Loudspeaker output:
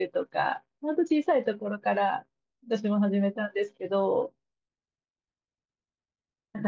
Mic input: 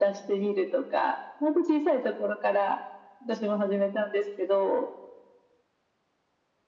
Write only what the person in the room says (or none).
none